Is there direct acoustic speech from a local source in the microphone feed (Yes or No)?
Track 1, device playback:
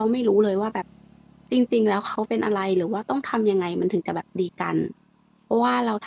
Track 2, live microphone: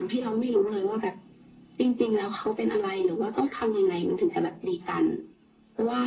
No